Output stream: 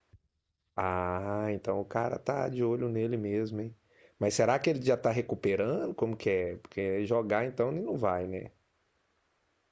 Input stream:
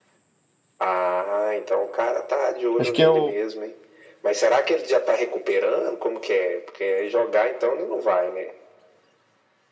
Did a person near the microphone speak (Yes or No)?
Yes